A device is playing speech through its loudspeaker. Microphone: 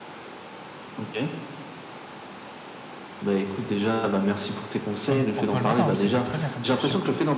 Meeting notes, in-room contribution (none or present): present